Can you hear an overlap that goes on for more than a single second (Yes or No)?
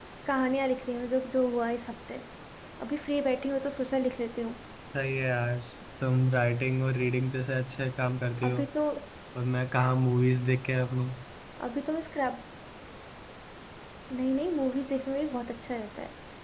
No